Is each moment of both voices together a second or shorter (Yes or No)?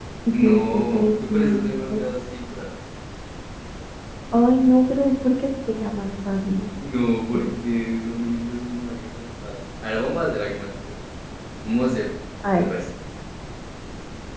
No